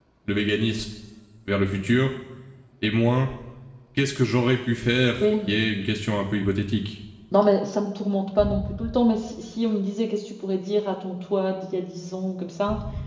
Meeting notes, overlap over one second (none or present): none